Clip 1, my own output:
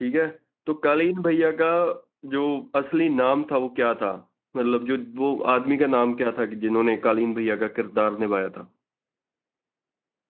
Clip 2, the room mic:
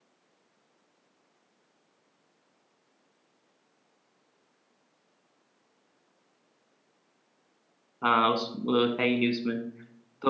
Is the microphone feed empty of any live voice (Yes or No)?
No